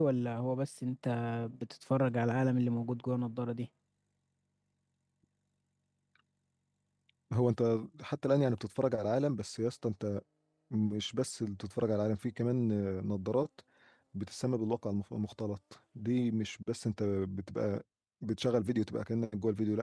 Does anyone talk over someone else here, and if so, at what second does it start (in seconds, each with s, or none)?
none